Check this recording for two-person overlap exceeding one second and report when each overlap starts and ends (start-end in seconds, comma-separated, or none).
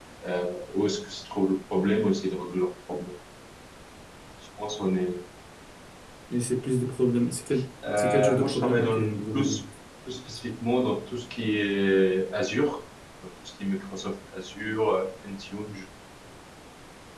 8.0-9.6